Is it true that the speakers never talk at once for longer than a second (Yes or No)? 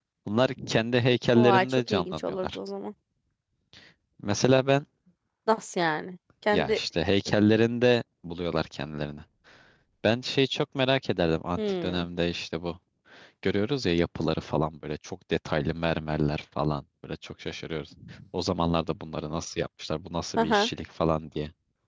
No